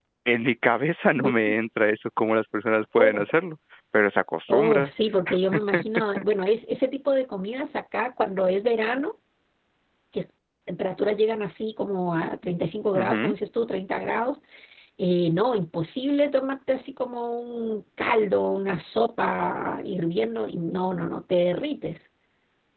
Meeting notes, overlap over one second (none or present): none